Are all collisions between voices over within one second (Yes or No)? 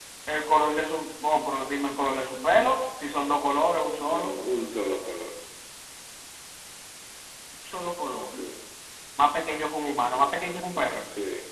Yes